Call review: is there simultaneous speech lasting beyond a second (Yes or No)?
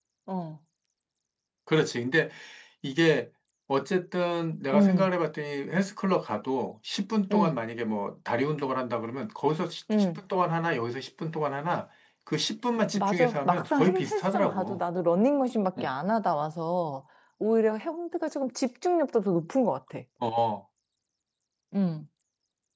Yes